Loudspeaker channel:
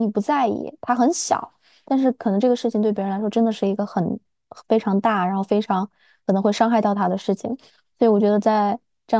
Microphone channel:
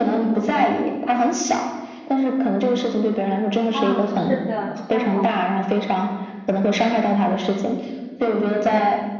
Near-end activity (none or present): present